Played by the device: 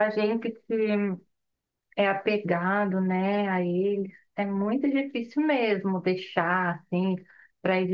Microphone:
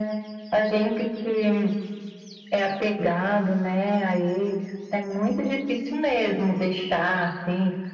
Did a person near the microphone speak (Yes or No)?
No